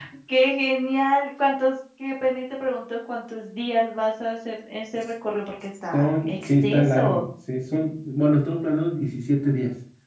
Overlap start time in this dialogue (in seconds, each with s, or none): 5.9 s